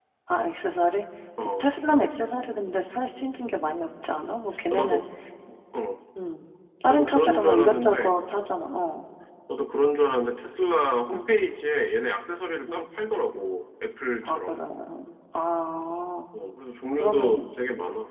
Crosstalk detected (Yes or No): Yes